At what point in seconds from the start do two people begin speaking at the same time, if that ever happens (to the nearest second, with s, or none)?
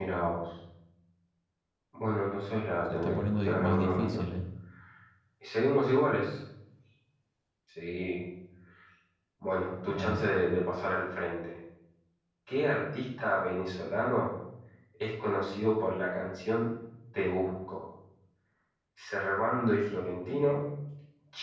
3 s